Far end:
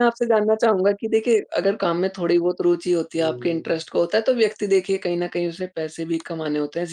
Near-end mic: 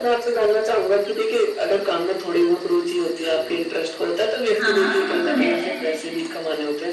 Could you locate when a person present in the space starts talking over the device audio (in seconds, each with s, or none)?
4.5 s